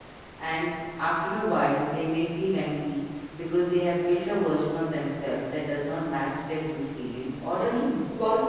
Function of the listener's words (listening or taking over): taking over